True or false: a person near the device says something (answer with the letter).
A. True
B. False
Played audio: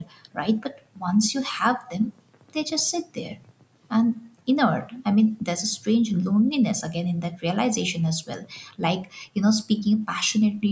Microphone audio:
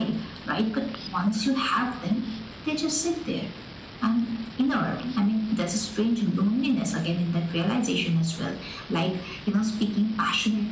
B